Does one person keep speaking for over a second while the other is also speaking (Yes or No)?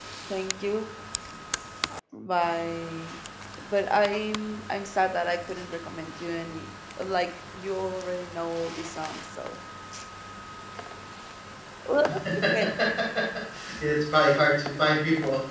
No